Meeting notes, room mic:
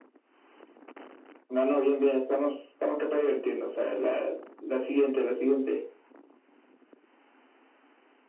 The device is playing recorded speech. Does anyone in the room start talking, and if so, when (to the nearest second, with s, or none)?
none